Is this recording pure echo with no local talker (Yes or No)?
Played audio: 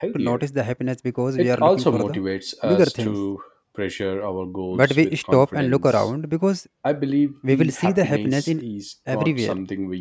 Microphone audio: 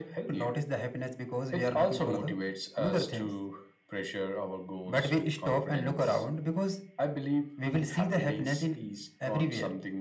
Yes